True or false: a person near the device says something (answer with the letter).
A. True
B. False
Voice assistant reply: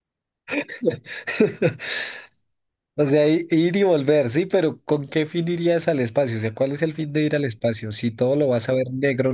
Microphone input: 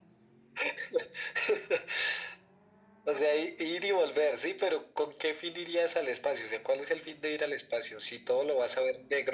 B